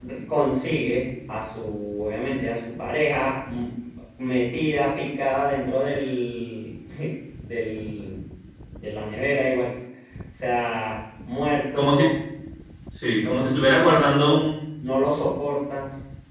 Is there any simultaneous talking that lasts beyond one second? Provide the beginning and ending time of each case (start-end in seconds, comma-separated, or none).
13.2-14.4